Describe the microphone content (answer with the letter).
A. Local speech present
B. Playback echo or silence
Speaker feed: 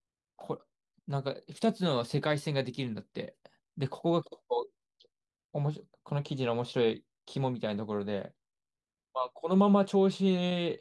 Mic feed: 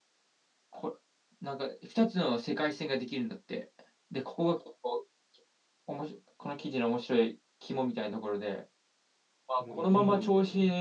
A